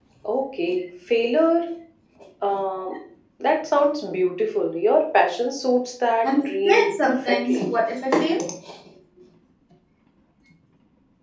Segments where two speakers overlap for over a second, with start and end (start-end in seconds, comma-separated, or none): 6.2-7.8